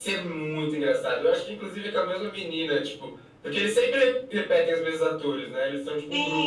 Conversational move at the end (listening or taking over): taking over